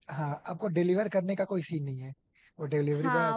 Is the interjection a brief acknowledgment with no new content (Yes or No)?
No